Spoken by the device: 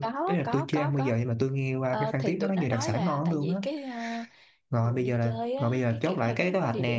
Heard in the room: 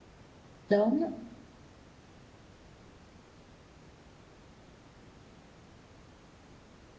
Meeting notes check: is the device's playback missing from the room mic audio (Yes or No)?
Yes